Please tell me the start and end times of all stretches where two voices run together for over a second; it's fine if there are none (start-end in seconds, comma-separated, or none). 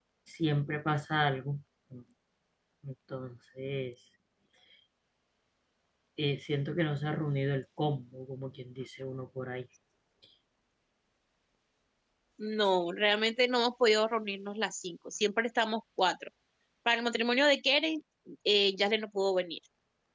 none